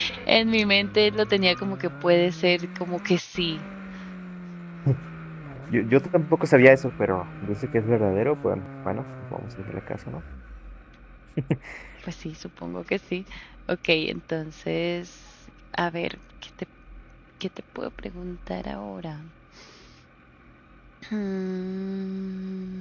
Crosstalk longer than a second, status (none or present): none